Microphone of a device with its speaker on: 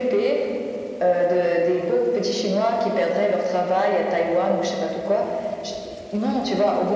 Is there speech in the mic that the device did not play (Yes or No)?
No